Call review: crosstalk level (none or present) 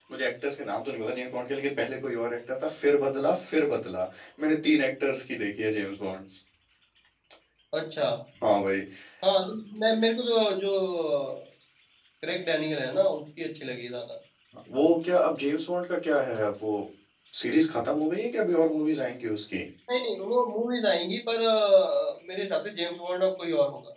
none